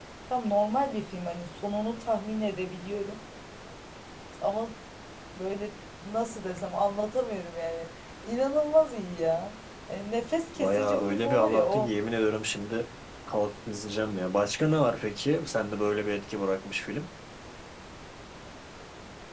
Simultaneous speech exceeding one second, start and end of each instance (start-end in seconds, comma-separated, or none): 10.6-11.9